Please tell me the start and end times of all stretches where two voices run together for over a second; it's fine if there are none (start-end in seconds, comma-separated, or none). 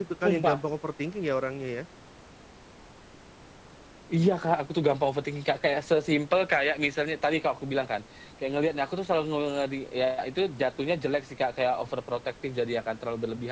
none